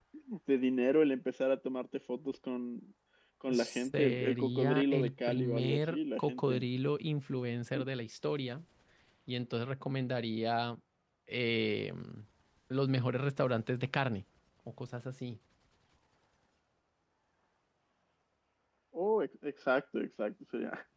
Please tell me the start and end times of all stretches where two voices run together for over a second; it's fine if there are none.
3.5-6.6

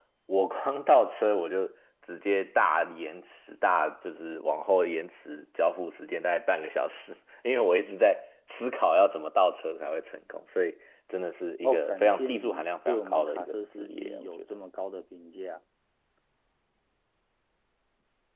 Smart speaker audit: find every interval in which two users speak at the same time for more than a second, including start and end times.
11.6-14.6

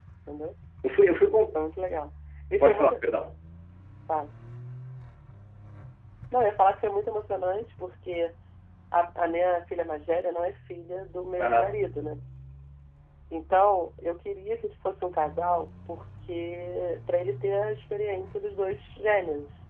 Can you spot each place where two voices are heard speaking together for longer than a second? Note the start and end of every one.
none

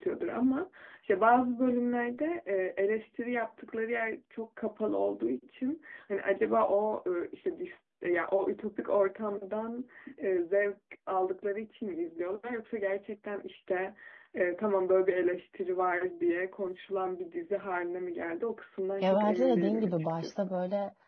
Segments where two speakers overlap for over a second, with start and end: 19.0-20.6

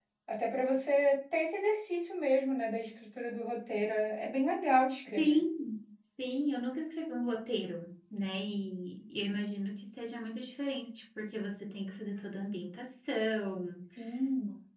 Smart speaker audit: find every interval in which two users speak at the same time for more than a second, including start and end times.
none

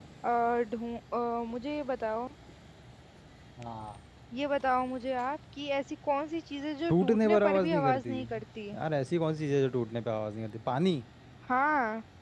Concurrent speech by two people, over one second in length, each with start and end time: 6.9-8.1

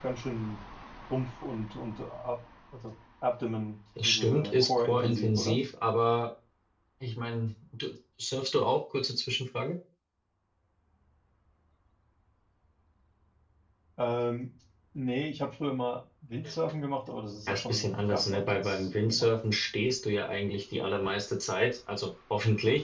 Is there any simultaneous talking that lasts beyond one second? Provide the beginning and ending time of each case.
4.0-5.6, 17.5-19.3

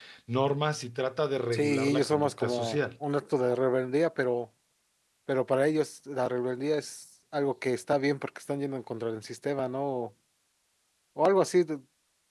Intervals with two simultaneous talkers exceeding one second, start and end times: 1.5-2.8

